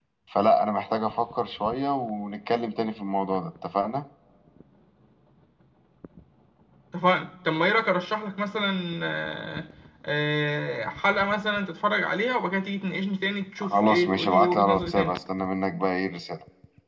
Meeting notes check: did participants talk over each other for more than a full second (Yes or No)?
Yes